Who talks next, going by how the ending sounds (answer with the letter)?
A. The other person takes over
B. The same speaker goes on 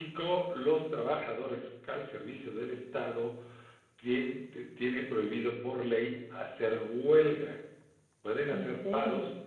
B